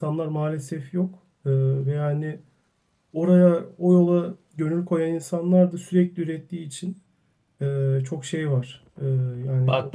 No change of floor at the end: No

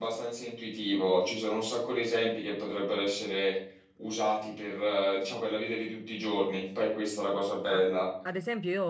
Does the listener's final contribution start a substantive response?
Yes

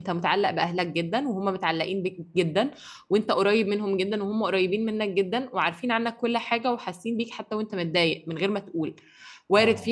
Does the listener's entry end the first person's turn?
No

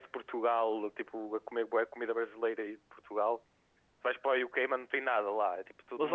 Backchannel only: No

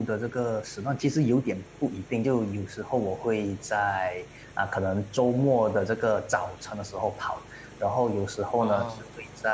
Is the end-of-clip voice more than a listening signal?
No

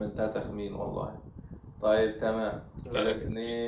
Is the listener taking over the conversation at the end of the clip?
No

